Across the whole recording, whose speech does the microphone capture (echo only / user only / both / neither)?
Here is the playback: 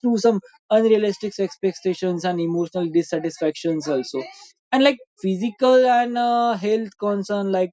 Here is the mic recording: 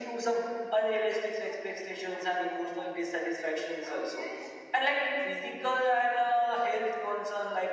echo only